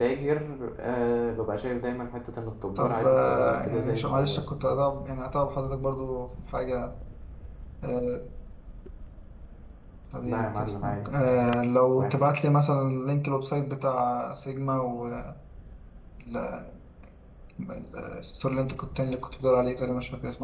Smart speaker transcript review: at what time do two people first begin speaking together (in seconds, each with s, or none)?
2.8 s